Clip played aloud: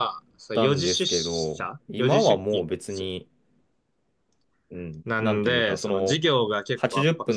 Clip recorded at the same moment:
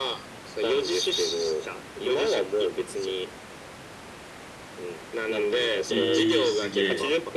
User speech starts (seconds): 5.8 s

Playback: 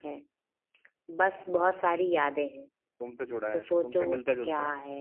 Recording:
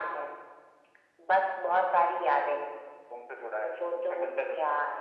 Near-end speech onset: none

